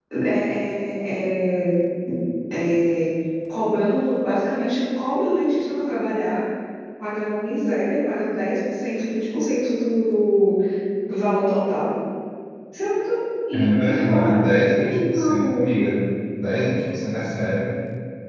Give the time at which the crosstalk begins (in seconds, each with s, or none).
13.5 s